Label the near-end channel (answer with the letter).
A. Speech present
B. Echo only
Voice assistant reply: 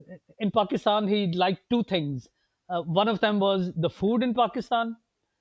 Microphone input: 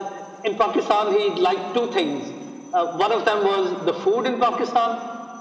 B